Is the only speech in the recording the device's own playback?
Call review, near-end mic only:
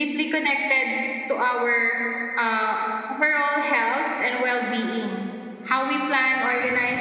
Yes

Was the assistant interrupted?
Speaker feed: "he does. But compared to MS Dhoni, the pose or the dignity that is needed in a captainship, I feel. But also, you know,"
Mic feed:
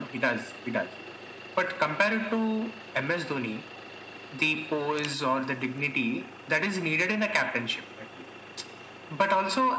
No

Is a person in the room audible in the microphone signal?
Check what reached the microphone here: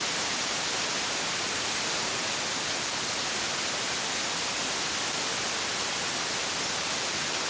No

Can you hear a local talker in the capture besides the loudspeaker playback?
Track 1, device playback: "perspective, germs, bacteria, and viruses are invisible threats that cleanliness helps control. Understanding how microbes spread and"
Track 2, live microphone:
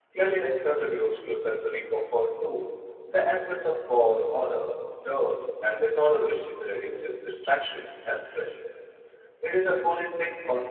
Yes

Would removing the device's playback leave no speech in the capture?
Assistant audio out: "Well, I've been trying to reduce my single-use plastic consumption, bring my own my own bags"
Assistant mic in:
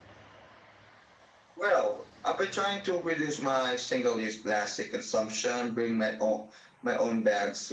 Yes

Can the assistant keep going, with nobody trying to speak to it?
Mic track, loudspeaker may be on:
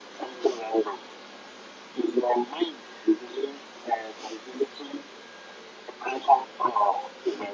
Yes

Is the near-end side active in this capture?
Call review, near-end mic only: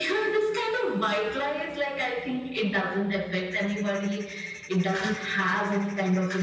No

